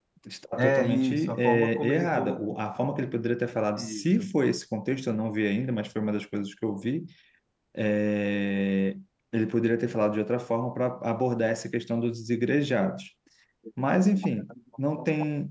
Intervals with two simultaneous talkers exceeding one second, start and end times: 0.6-2.4

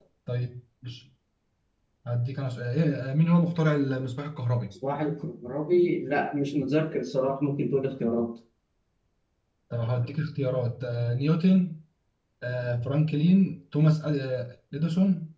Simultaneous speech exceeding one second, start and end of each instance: none

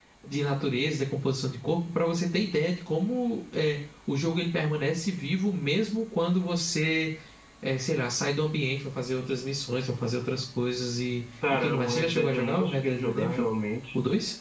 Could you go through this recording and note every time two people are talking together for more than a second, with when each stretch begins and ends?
11.5-13.5

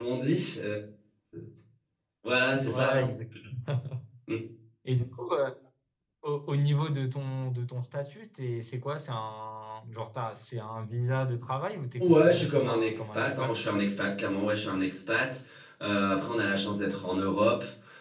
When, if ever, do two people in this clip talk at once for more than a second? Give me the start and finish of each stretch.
12.0-13.6

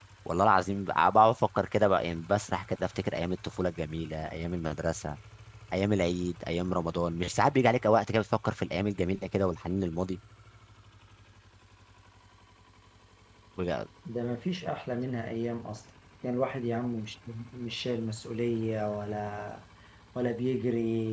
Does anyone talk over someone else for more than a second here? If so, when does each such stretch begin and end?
none

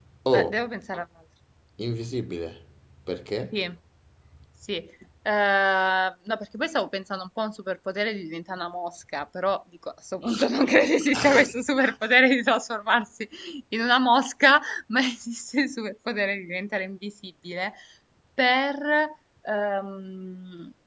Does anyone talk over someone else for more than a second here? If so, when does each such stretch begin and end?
none

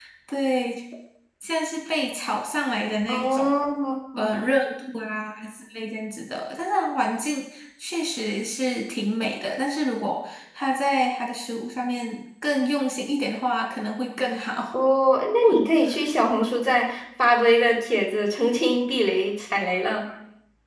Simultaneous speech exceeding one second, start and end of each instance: none

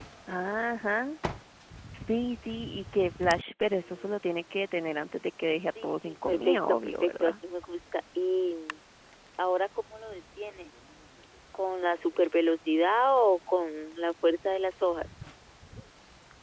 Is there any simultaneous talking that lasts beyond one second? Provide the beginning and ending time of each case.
5.8-7.4

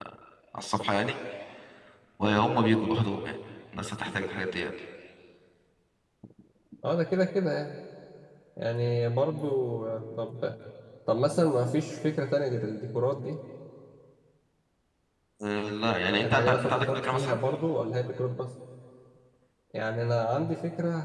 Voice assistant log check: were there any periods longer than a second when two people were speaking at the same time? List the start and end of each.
16.1-17.4

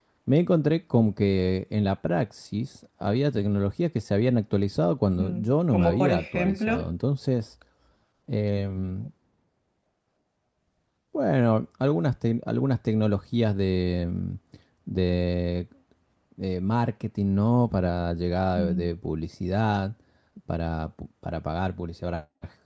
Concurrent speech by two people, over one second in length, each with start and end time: 5.2-6.9

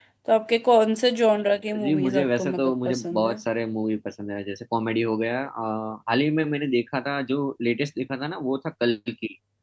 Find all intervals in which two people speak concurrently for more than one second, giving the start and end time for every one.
1.8-3.4

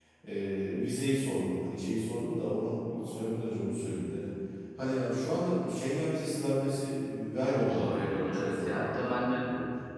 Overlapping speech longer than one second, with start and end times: 7.4-9.4

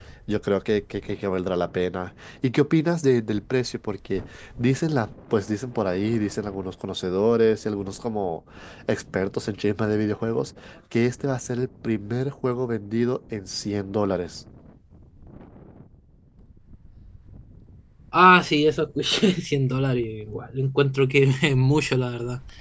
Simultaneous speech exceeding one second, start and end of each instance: none

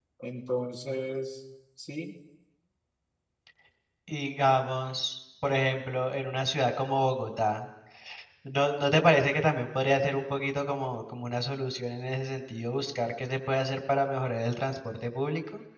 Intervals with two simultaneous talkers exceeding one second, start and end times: none

